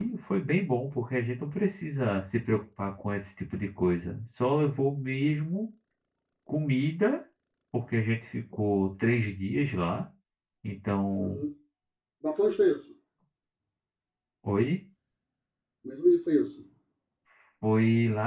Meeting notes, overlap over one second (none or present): none